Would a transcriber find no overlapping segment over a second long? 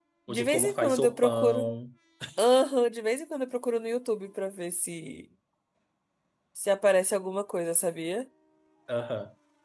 No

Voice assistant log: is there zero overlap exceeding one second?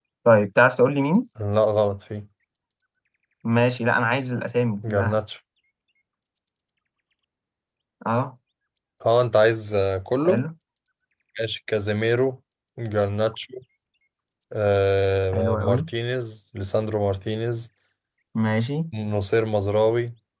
Yes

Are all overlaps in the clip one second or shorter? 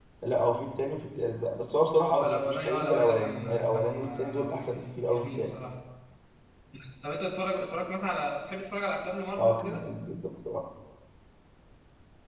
No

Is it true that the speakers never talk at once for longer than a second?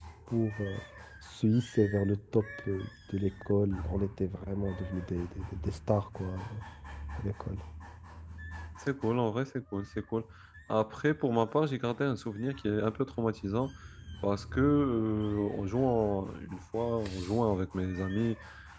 Yes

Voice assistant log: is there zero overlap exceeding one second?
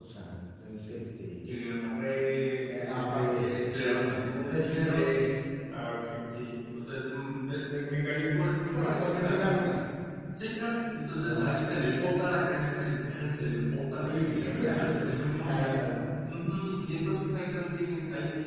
No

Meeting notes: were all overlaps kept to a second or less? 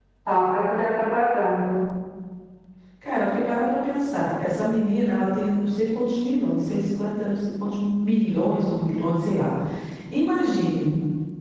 Yes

